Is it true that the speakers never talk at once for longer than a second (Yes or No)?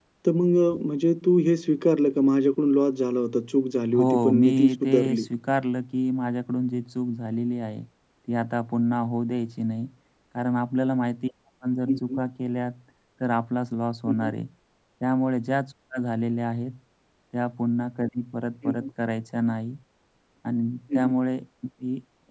No